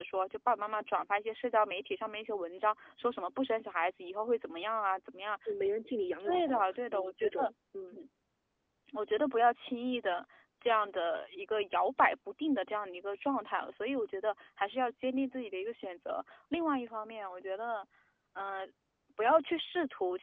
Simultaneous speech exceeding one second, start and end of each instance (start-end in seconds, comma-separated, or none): 6.2-7.5